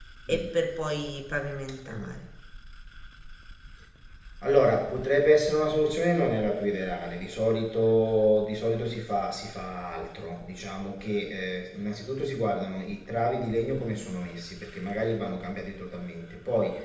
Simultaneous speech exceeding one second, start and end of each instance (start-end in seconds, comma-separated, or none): none